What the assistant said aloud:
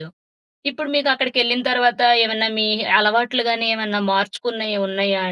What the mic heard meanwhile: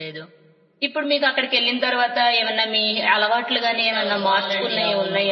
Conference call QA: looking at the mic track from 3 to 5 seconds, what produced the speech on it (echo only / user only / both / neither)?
both